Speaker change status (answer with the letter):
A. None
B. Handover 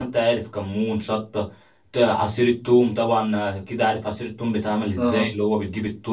A